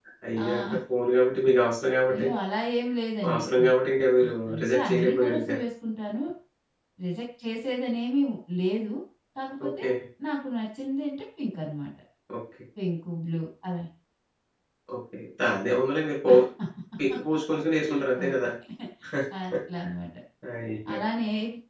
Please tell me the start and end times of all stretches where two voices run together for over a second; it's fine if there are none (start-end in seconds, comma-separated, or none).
4.2-5.5